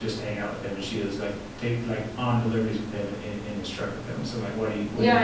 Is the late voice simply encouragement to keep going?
No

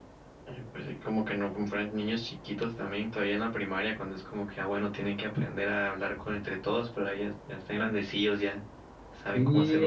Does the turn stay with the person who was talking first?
No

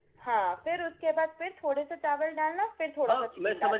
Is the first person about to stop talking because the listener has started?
Yes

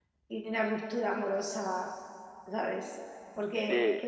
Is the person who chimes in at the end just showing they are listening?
Yes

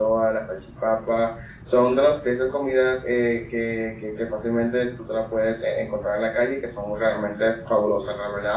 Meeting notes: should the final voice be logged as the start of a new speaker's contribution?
No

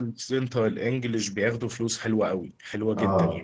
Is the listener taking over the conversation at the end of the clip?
Yes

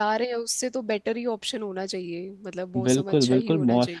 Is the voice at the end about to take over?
Yes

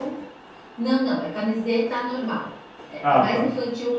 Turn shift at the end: No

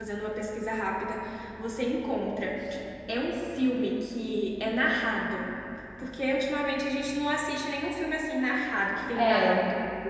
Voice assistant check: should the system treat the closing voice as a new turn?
No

